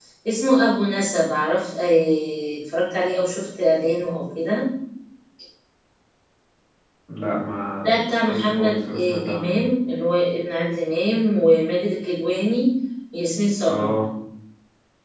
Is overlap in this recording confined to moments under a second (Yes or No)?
No